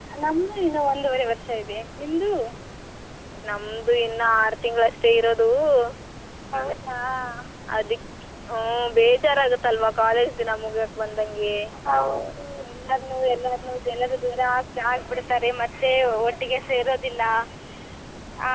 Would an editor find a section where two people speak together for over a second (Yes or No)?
No